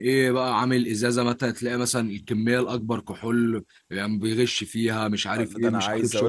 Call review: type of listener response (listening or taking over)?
taking over